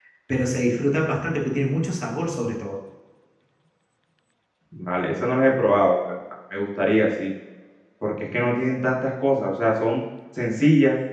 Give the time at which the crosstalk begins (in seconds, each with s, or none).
none